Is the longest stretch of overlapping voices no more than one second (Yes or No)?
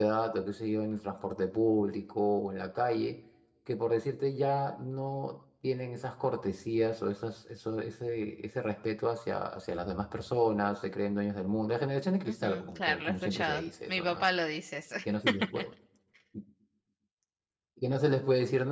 No